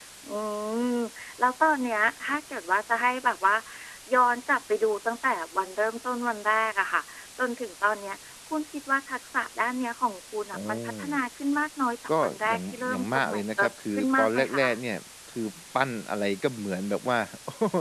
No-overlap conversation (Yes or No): No